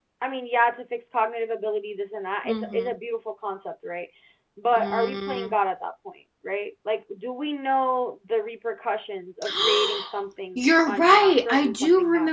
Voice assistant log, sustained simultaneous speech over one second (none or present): present